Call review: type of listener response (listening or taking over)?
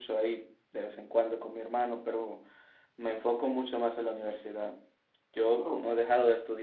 listening